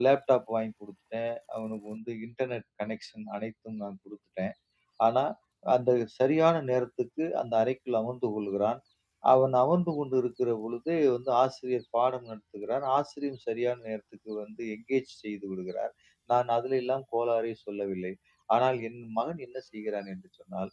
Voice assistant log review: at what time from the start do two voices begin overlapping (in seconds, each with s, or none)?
none